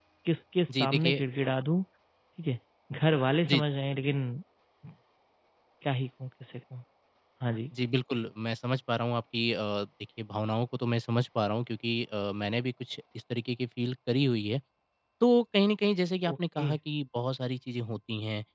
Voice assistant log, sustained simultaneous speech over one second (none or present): none